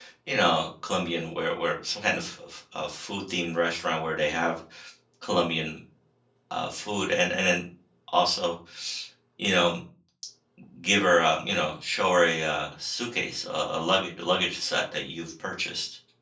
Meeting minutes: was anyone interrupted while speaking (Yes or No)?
No